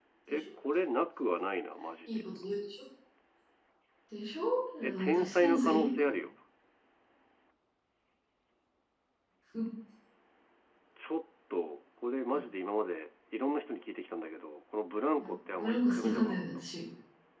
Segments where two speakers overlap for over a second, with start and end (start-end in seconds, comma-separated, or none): 4.8-6.1, 15.2-16.4